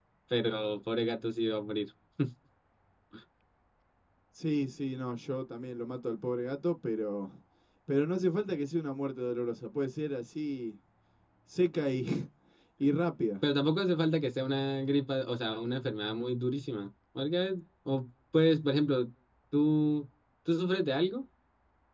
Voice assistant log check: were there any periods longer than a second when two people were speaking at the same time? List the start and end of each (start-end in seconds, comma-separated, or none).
none